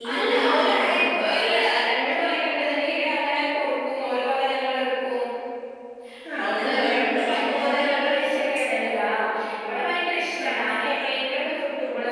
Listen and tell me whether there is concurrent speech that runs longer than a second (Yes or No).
Yes